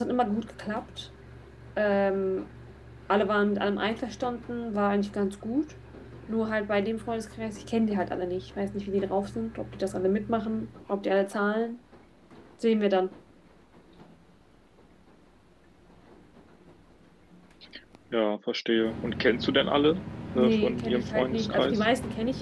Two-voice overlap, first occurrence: 20.4 s

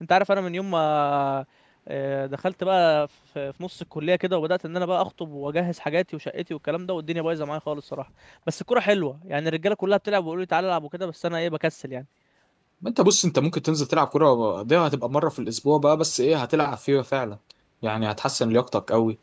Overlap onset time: none

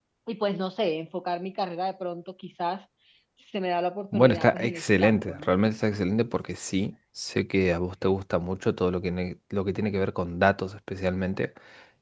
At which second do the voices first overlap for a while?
4.1 s

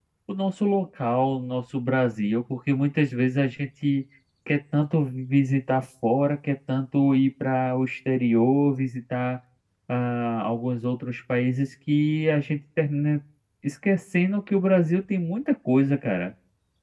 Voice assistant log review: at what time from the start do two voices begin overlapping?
none

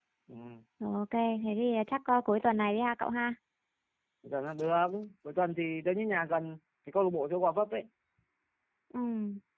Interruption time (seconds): none

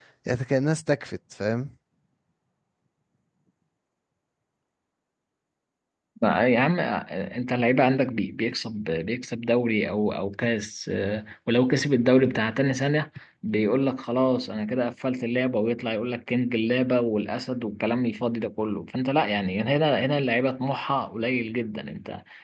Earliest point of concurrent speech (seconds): none

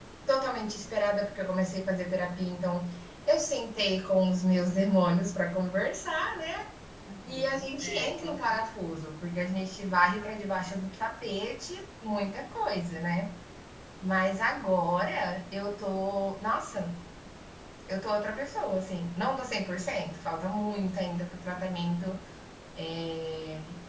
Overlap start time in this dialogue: 7.2 s

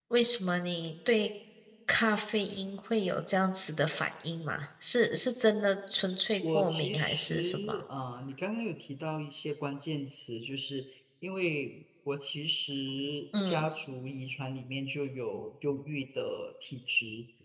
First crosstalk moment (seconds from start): 6.4 s

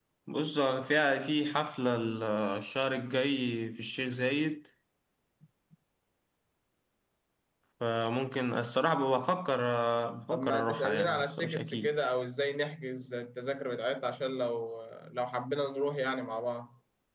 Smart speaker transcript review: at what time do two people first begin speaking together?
10.3 s

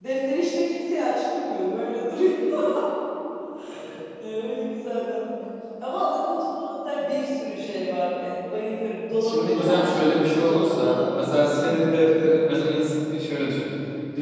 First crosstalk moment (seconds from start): 9.2 s

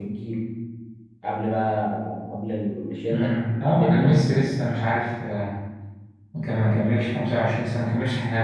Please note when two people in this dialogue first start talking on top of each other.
3.1 s

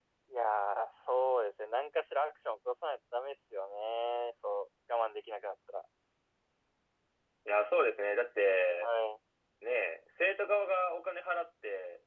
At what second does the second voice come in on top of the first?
none

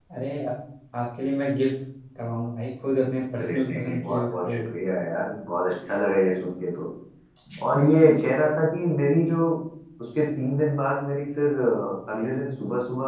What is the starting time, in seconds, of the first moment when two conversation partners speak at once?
3.3 s

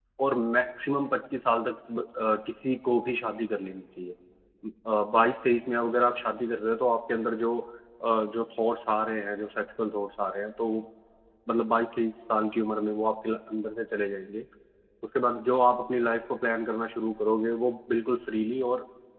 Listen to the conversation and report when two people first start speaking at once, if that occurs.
none

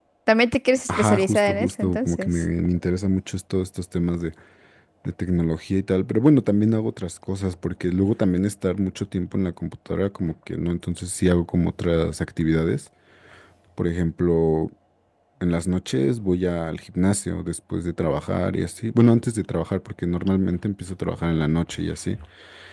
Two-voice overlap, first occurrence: 0.9 s

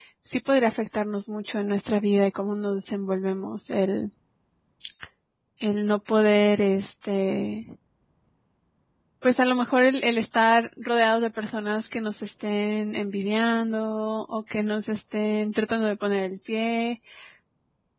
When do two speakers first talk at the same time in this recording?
none

